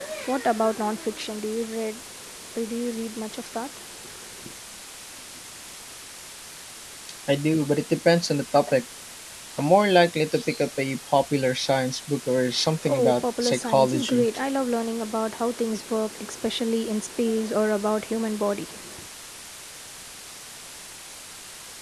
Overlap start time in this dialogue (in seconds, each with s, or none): 12.9 s